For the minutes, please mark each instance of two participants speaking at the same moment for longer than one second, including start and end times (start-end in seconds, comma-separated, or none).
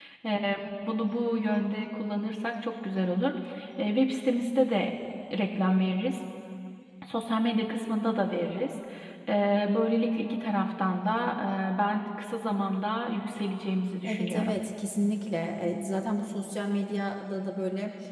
none